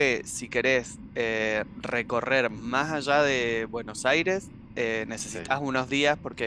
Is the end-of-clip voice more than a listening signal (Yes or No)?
No